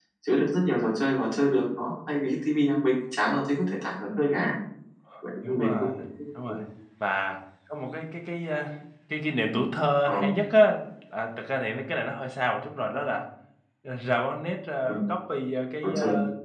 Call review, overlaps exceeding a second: none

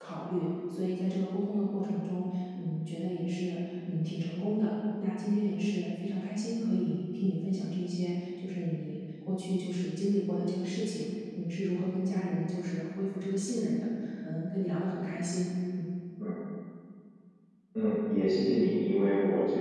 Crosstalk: none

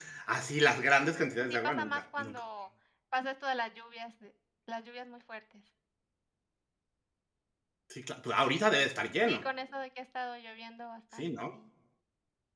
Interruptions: present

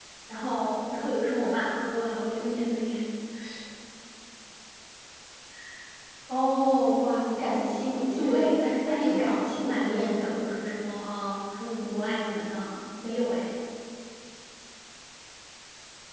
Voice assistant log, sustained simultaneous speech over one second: present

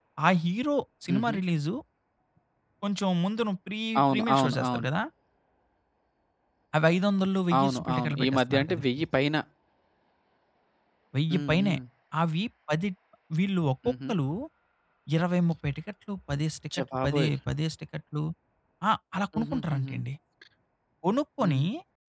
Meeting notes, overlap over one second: present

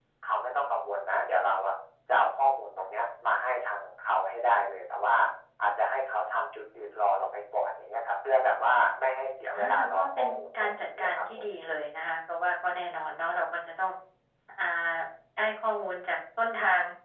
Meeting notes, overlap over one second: present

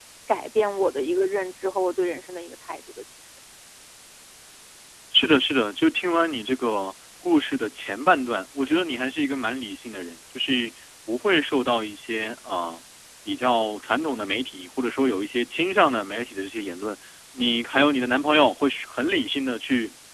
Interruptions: none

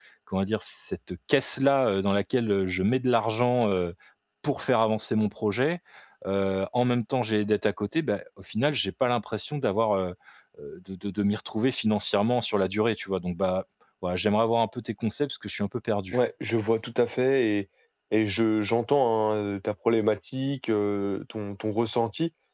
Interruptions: none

